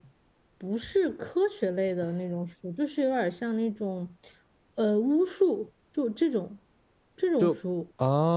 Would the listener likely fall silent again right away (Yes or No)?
No